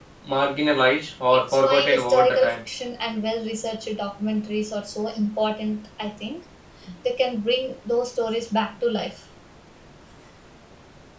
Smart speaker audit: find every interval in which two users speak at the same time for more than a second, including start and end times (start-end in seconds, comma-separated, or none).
1.3-2.6